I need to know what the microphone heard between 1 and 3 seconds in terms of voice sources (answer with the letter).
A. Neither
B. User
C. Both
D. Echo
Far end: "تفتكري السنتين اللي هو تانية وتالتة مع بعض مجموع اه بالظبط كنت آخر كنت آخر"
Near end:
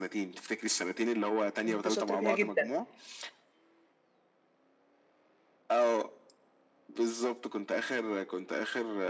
C